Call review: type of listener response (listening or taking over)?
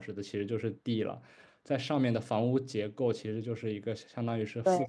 listening